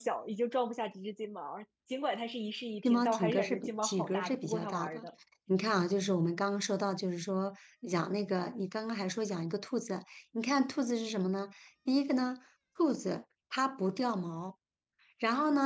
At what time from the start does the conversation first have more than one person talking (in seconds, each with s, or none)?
2.8 s